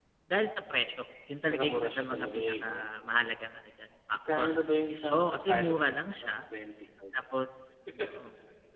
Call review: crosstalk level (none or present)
present